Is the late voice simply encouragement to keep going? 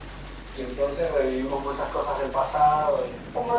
No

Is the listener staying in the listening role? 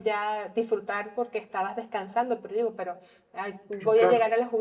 Yes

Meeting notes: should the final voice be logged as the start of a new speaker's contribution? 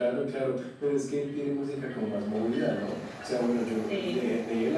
No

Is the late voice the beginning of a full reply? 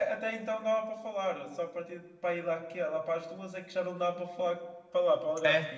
Yes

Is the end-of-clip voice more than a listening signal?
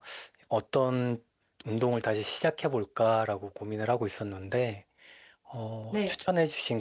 No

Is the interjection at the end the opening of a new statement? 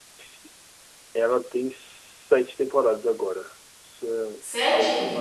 No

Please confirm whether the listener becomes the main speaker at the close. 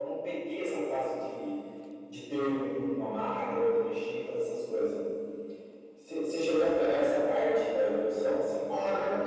Yes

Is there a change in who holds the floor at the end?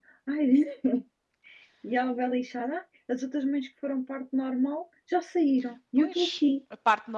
Yes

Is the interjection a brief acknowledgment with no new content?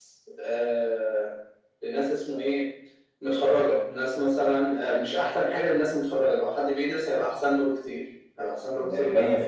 No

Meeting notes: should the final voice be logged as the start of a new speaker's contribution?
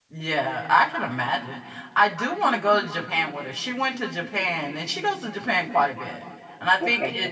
No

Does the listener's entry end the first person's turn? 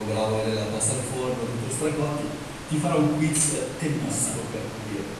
No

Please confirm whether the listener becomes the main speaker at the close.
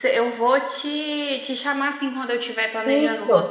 No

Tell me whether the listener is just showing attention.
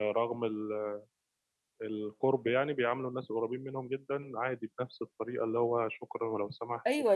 No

